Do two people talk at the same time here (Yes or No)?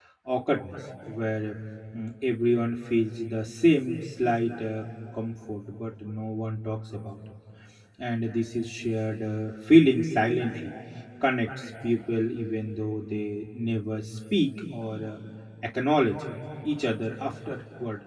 No